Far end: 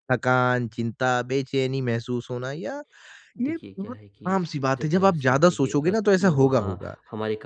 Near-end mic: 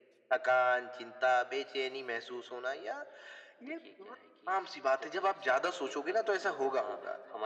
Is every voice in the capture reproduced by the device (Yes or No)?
Yes